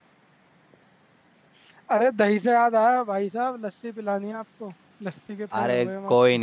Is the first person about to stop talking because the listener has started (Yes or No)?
Yes